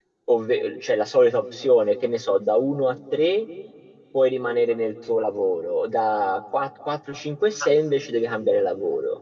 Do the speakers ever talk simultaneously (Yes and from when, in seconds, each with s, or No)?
No